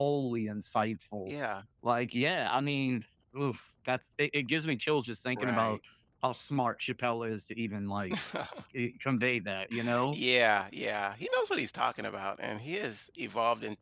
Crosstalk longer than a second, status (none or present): none